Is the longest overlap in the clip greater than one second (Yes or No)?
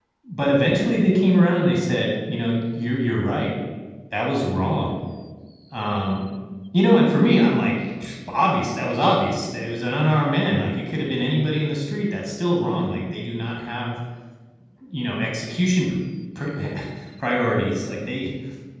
No